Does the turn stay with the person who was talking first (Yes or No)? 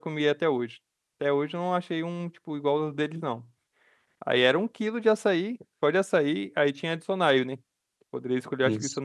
Yes